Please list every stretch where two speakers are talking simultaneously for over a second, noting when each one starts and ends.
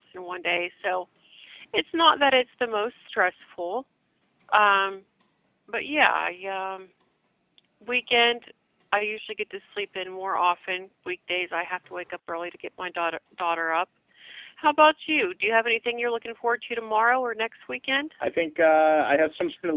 none

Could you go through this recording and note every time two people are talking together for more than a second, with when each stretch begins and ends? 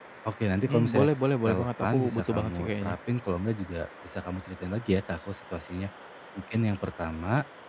1.4-3.0

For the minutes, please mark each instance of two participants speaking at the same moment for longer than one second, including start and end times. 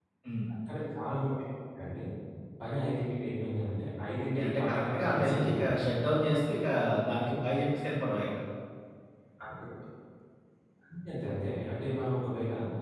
4.2-5.8

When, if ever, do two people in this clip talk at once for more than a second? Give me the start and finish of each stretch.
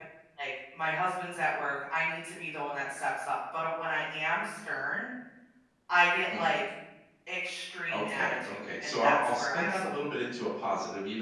7.9-9.9

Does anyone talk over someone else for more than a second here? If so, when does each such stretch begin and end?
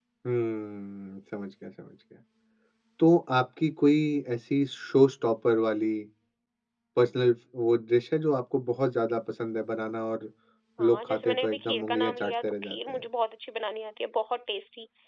10.9-13.0

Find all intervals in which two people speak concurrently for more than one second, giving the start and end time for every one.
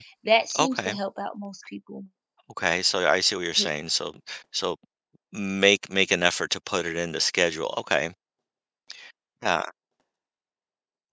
none

